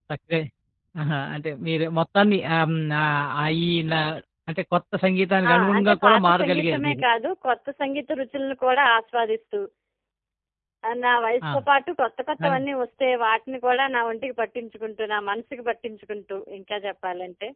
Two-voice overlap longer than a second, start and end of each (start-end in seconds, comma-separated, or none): 5.5-7.0